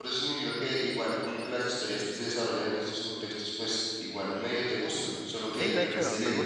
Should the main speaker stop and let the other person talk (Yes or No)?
Yes